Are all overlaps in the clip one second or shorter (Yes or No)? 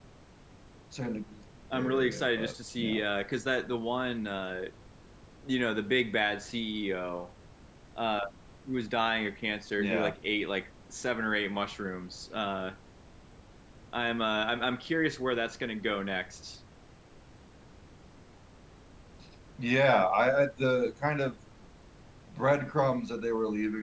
No